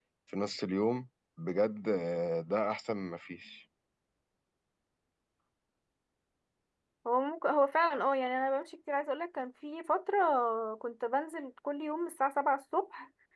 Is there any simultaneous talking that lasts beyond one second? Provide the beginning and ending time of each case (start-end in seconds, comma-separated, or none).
none